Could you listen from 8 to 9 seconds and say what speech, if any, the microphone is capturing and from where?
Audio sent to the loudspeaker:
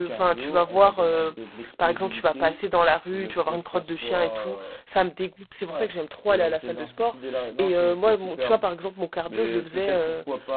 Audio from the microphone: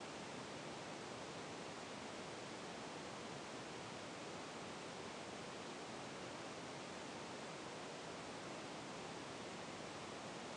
neither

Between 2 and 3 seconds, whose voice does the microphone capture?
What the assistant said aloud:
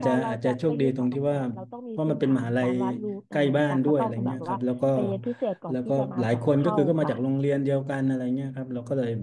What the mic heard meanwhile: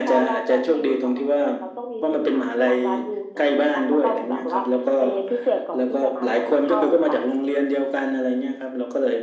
echo only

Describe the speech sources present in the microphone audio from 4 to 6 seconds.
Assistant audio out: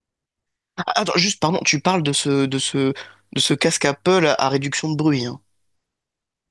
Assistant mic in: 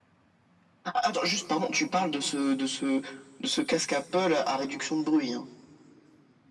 echo only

